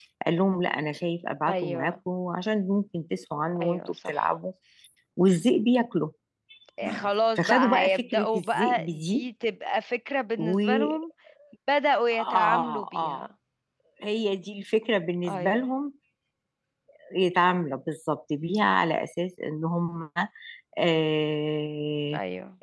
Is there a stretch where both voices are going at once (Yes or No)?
Yes